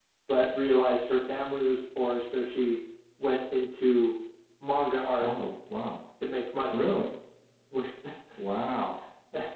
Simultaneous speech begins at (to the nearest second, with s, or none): none